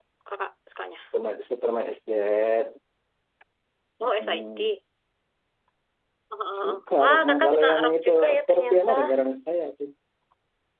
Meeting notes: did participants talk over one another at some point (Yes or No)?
Yes